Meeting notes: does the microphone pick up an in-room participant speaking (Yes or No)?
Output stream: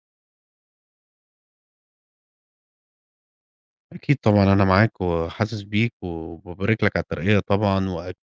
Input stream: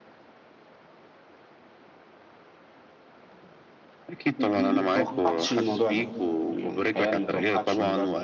Yes